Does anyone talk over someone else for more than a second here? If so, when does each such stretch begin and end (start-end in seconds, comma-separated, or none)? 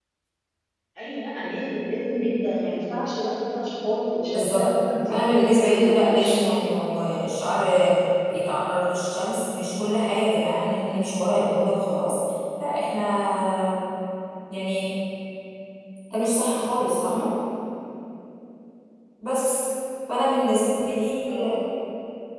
5.1-6.7